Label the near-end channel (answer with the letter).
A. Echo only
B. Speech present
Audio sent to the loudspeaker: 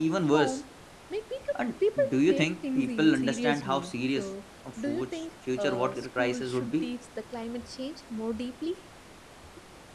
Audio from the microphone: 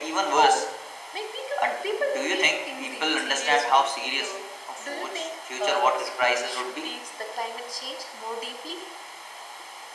A